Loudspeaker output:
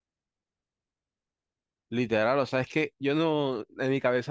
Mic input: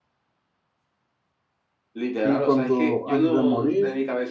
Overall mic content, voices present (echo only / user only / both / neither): both